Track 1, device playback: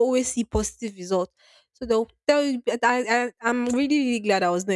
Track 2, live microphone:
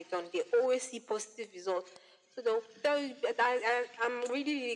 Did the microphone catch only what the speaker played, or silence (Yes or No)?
Yes